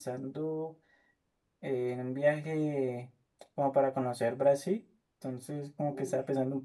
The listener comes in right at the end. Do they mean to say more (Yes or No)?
No